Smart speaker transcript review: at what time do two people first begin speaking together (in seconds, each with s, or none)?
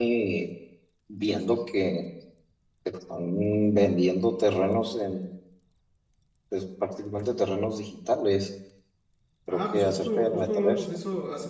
9.5 s